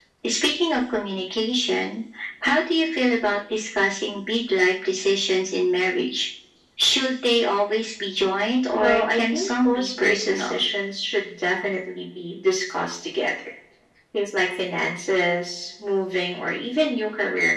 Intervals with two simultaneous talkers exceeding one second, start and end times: 8.8-10.6

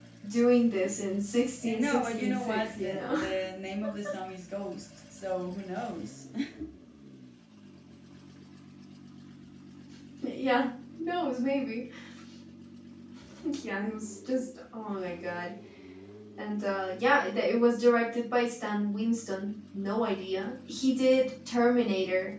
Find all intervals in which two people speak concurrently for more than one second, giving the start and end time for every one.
1.6-3.1

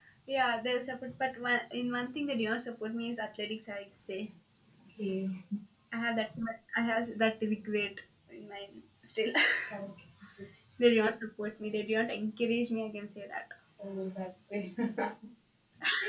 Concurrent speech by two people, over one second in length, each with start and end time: none

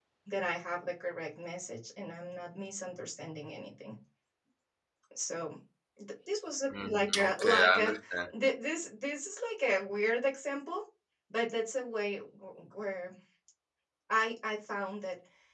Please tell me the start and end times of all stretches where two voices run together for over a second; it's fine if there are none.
6.7-7.9

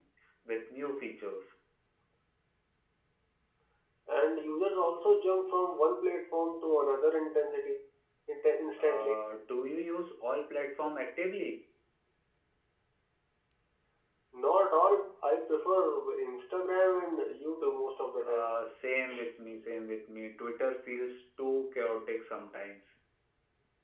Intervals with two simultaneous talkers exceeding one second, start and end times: none

